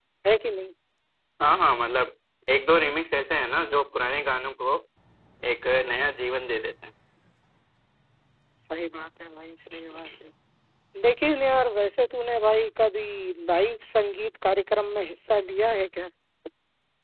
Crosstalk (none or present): none